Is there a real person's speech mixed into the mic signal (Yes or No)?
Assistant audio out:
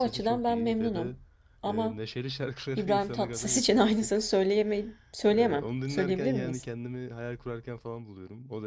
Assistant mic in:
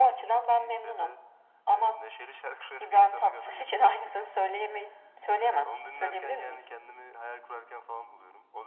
No